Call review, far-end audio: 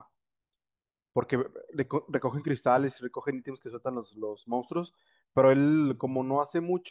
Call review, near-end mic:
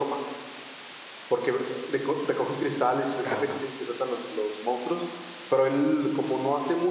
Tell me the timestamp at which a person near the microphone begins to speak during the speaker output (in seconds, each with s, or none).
3.2 s